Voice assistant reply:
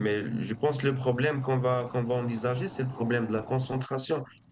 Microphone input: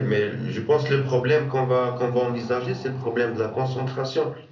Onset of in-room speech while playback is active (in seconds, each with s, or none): none